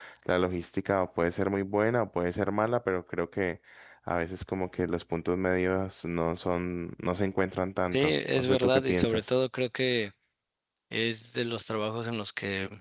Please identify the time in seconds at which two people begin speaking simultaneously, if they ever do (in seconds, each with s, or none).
7.9 s